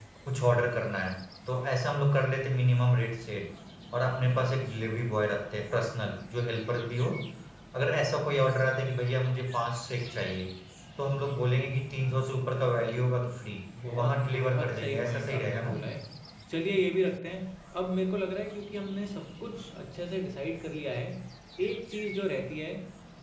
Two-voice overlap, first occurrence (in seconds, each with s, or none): 13.7 s